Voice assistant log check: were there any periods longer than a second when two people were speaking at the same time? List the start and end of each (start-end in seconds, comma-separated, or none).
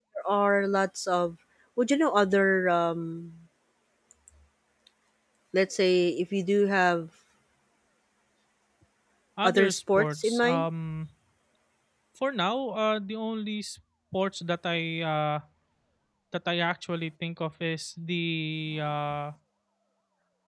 9.4-10.6